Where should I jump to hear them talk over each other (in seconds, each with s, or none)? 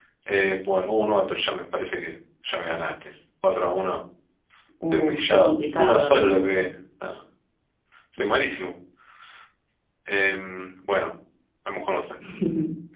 4.9 s